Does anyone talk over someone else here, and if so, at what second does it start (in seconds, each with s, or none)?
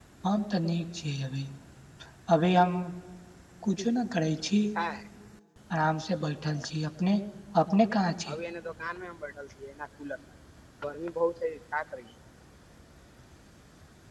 none